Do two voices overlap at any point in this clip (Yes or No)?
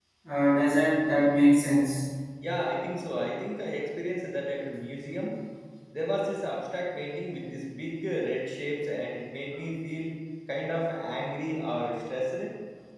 No